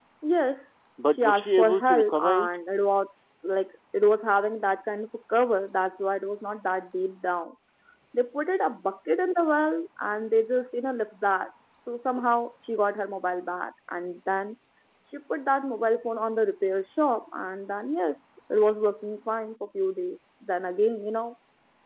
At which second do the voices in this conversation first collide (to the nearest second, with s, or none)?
1 s